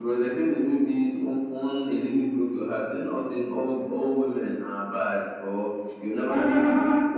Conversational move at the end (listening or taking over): listening